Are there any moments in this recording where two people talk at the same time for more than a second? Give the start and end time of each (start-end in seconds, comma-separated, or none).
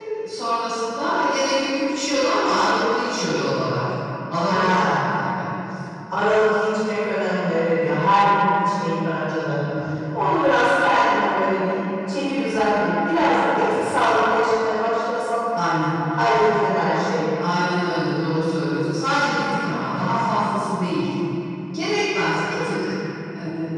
none